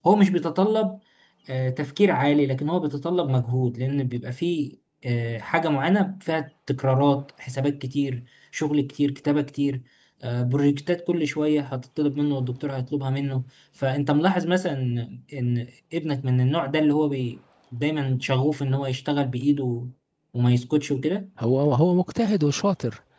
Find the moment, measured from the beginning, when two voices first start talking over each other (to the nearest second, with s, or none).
none